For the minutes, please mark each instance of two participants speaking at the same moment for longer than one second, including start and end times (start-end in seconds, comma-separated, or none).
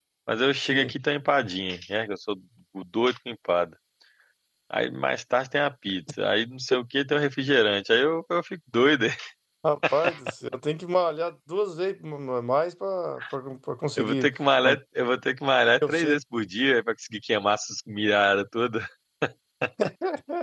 none